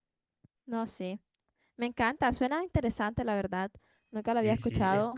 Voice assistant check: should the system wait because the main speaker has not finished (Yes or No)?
No